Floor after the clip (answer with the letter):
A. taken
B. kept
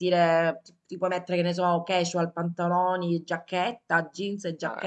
A